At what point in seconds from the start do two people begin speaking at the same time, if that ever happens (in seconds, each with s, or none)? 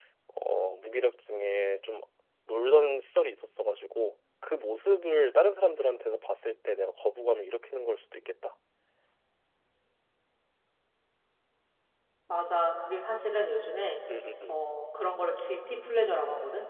none